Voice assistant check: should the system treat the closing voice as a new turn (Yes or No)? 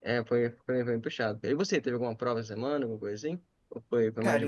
Yes